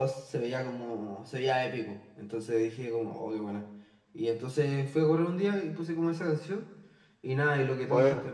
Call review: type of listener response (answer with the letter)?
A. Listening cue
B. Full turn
A